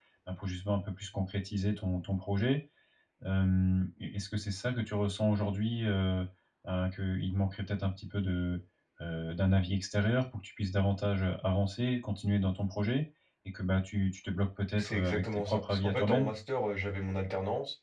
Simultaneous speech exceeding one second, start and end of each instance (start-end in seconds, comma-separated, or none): 14.8-16.3